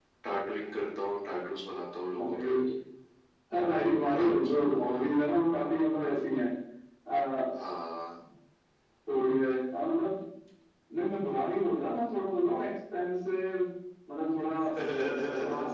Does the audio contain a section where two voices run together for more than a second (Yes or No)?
No